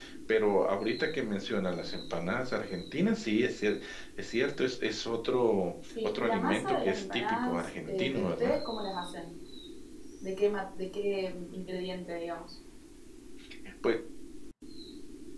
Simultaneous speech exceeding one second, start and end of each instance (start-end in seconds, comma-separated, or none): 6.0-8.6